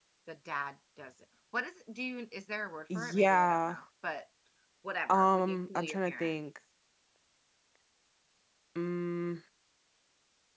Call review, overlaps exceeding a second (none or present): present